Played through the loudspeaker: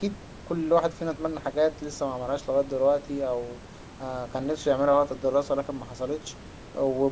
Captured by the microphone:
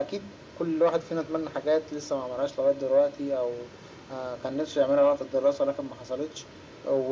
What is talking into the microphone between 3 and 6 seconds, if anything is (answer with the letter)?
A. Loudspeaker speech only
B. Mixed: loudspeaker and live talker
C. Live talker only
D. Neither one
A